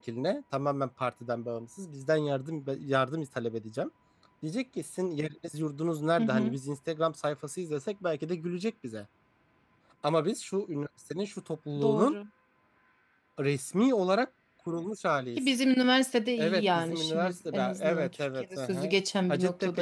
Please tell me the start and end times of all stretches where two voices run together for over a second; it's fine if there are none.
16.4-18.9

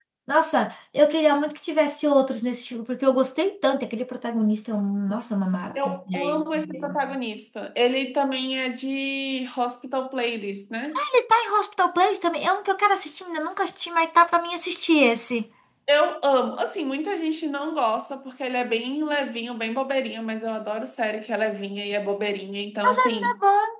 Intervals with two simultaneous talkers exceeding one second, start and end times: 5.8-7.0

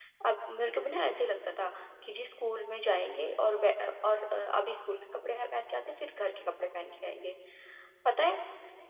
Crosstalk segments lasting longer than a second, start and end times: none

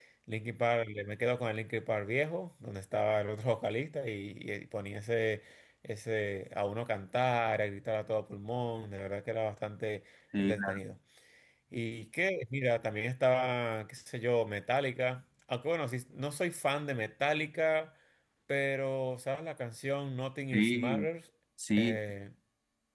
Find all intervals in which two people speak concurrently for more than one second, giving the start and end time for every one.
none

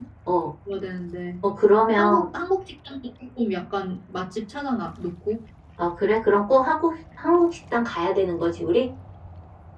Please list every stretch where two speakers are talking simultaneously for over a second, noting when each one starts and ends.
none

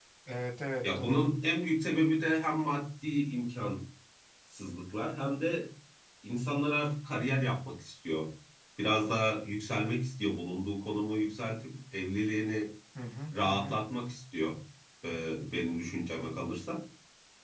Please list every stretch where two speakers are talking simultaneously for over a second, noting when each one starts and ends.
none

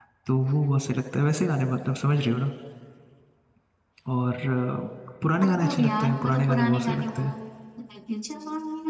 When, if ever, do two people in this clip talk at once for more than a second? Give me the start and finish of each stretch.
5.4-7.2

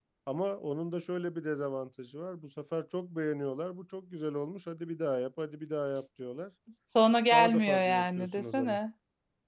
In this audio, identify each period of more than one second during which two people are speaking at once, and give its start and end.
7.3-8.8

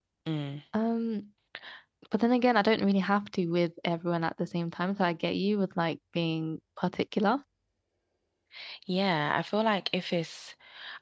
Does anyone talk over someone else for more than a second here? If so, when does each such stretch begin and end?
none

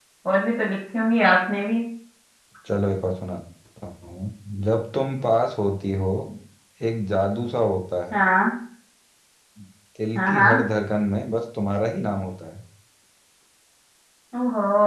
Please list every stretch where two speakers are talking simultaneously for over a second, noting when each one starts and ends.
none

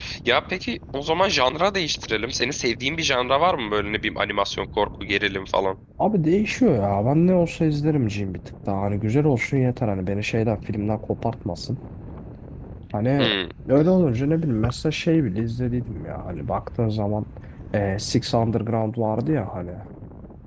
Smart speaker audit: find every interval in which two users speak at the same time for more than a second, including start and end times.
none

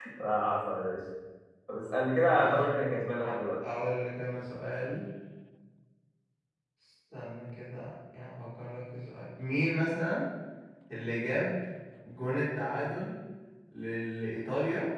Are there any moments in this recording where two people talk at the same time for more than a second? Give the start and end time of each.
none

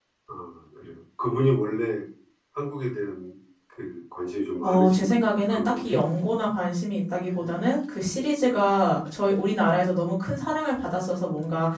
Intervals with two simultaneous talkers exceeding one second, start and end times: 4.6-6.0

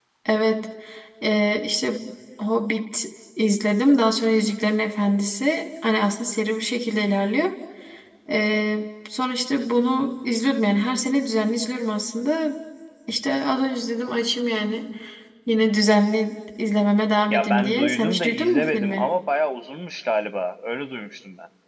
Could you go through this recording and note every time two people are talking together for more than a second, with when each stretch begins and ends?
17.3-19.1

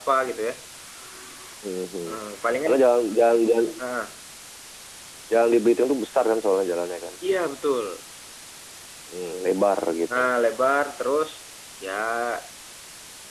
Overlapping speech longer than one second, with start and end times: none

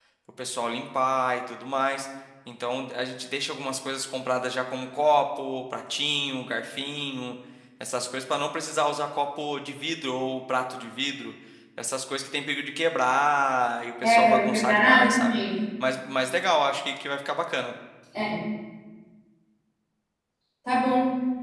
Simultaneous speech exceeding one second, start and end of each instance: 14.1-15.4

